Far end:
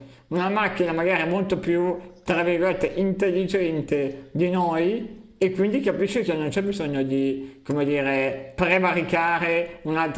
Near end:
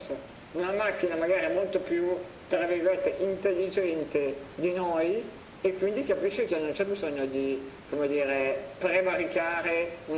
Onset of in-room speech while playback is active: none

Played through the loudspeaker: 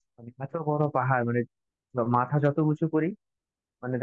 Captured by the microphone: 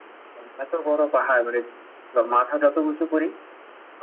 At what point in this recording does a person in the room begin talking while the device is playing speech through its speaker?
none

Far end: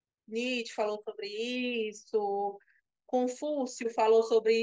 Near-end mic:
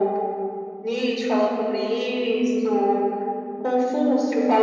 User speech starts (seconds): none

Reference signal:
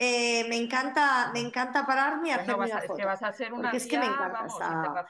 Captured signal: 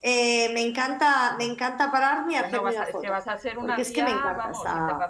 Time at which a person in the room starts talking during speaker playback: none

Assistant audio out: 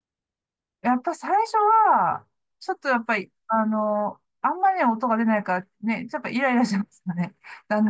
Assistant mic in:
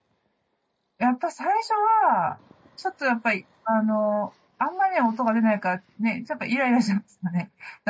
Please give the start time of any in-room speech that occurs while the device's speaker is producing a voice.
none

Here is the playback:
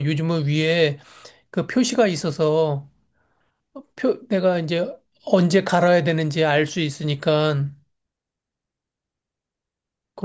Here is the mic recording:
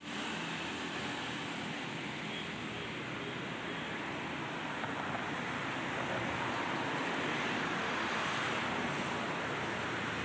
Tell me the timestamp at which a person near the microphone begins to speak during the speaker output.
none

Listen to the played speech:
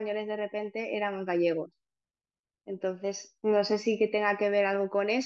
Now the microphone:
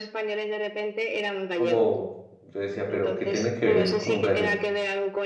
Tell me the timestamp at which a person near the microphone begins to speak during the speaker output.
1.6 s

